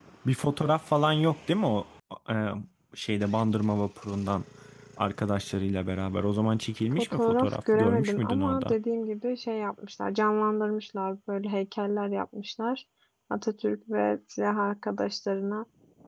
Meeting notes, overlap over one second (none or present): present